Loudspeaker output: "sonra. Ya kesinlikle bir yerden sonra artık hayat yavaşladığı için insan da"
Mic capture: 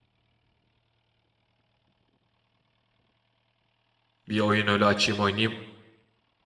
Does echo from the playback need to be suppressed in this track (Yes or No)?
No